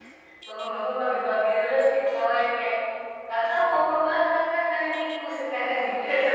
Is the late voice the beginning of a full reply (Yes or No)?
Yes